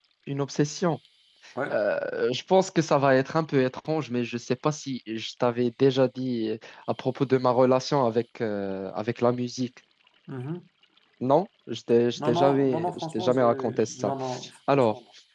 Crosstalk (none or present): present